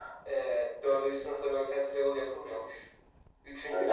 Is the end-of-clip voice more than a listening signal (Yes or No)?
No